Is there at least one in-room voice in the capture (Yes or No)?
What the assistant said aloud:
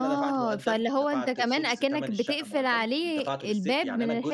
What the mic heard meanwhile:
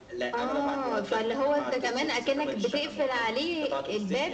No